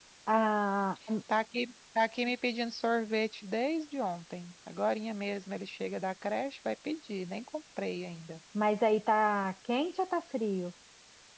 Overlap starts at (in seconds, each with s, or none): none